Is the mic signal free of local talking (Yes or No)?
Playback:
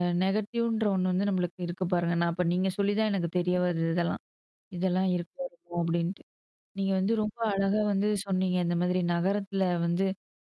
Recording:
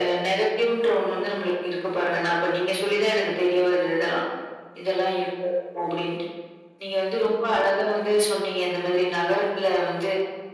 Yes